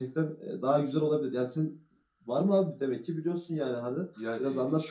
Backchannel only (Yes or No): No